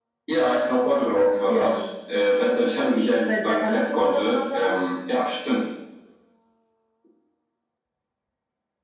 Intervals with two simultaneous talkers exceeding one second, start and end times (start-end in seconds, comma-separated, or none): 3.3-4.7